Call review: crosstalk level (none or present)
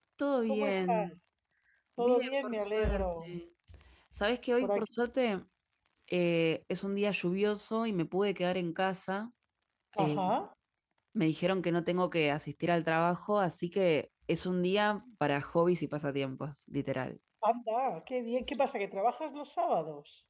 present